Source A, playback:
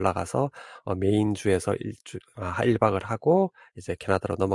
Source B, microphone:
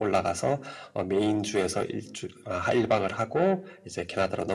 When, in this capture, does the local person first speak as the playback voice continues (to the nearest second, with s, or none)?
none